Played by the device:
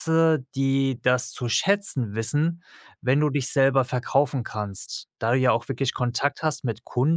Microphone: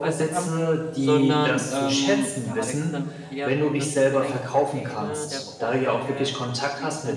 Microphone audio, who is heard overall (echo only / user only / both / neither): both